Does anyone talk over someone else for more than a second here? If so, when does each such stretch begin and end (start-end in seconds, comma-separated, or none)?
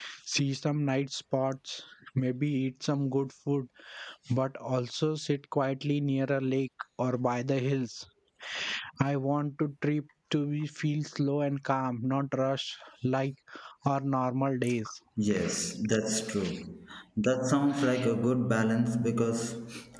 none